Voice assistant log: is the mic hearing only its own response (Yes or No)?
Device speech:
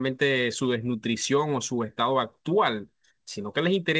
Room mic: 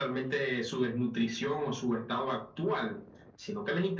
Yes